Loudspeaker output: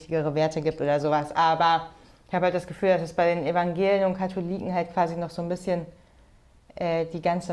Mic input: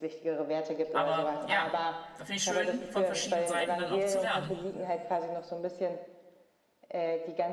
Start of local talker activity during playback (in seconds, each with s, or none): 0.9 s